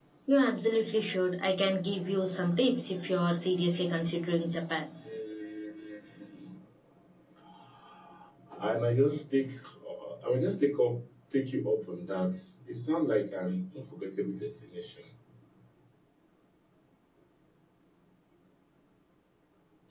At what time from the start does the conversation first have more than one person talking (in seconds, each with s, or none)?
none